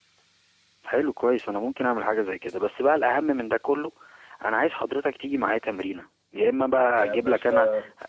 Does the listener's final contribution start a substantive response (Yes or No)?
No